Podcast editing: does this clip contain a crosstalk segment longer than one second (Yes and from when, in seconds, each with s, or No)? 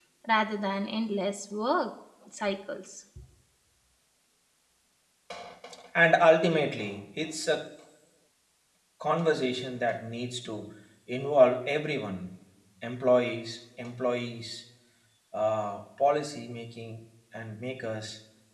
No